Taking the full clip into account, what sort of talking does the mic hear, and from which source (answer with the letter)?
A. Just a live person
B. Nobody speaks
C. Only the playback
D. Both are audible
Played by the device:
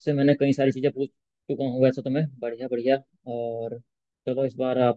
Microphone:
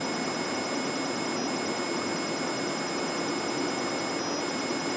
B